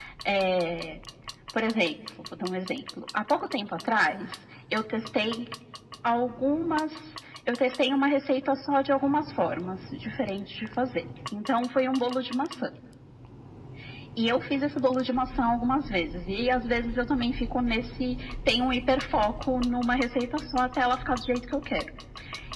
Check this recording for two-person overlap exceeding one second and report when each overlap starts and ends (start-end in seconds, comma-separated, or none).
none